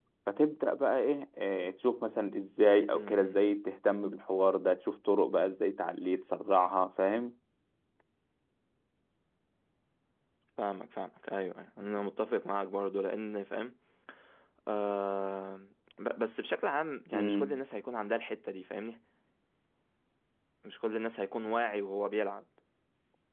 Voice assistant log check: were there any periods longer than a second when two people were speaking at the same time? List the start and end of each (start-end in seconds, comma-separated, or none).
none